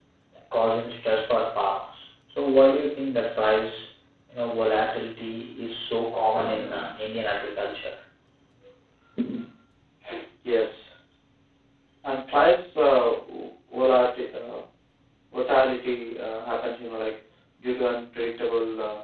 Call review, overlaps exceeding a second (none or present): none